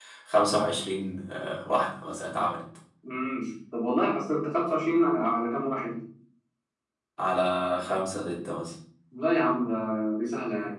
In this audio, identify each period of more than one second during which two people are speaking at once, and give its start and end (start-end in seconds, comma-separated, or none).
none